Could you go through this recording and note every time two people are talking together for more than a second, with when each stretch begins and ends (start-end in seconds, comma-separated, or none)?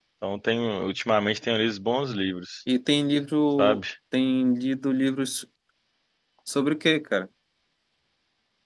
none